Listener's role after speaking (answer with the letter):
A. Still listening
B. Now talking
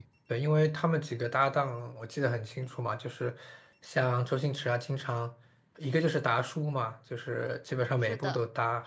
A